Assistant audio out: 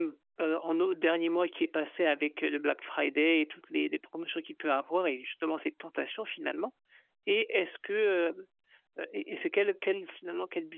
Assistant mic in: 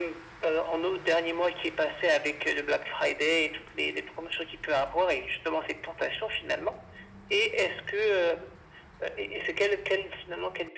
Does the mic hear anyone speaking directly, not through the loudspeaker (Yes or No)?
No